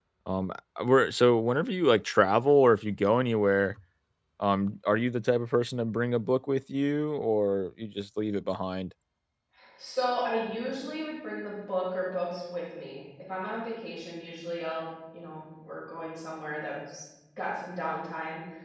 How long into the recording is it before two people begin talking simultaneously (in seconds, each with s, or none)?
none